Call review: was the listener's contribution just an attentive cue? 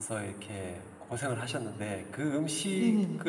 Yes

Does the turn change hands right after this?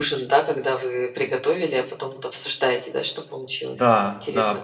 Yes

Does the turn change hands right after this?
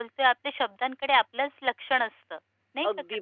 Yes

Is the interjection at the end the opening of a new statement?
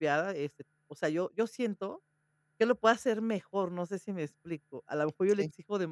No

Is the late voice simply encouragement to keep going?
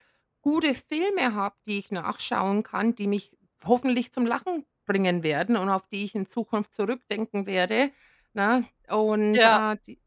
Yes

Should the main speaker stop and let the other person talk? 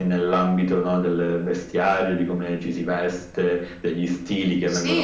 Yes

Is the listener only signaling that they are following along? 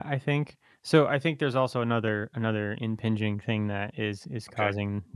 Yes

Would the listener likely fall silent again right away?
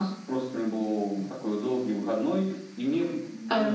Yes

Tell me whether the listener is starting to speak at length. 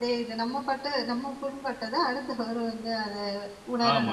Yes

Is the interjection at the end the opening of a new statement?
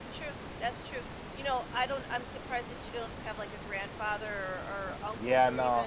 Yes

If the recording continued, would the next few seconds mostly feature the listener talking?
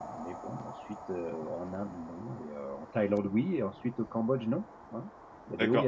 Yes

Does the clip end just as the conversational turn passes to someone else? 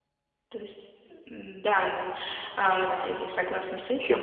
Yes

